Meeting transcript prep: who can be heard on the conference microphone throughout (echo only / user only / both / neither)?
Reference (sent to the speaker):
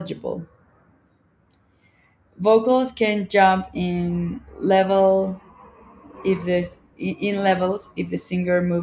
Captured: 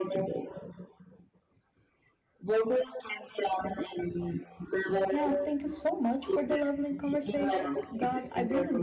both